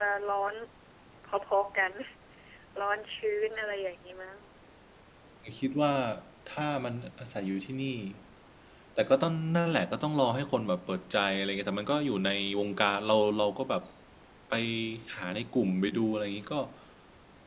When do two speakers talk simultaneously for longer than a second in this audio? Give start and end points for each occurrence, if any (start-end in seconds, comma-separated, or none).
none